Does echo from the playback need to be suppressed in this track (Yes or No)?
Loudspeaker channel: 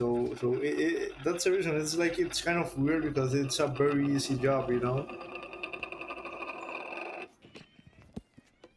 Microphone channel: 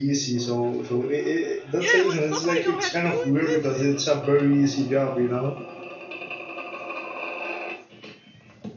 Yes